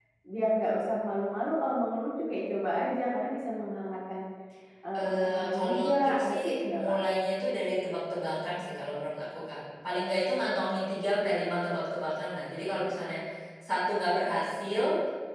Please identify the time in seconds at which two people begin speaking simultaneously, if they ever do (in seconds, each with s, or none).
5.0 s